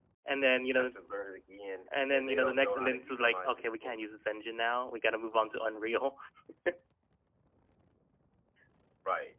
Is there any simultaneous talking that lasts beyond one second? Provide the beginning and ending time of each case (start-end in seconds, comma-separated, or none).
2.1-4.1